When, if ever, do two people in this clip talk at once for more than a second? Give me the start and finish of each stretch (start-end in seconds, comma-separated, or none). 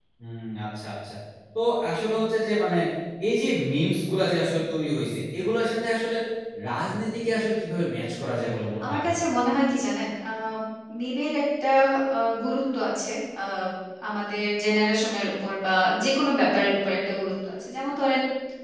none